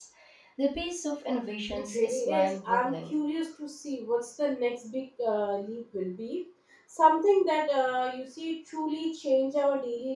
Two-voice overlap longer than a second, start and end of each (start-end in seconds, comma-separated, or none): 1.7-3.1